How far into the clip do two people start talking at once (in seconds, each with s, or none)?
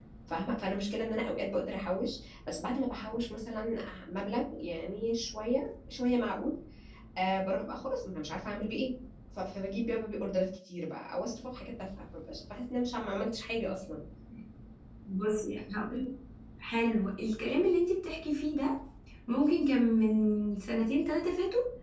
none